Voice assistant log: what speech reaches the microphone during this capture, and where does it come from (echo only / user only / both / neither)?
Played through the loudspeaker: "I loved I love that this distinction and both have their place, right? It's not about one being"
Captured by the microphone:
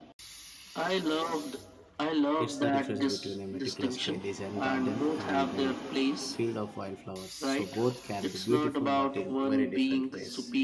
both